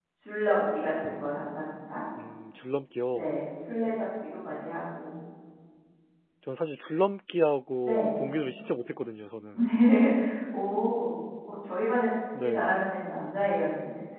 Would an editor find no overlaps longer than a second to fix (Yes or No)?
Yes